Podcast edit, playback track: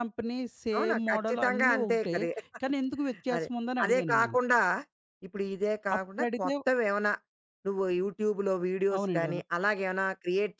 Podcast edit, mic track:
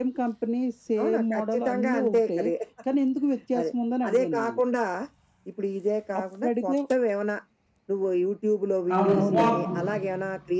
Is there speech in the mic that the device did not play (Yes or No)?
Yes